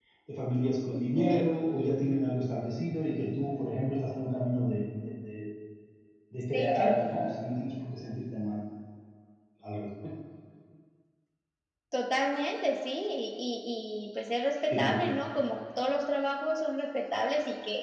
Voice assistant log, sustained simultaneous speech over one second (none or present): none